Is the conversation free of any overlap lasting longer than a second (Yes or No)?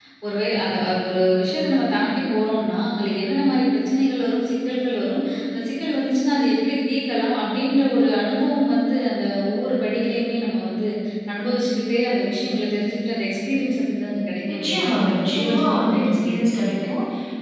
No